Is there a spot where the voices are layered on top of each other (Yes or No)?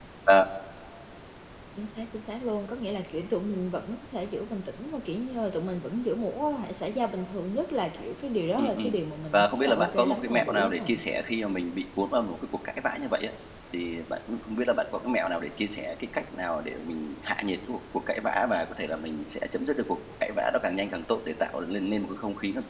Yes